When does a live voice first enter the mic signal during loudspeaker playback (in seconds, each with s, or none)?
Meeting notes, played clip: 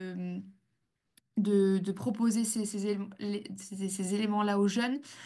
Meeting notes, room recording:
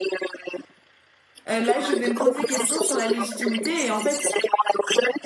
1.5 s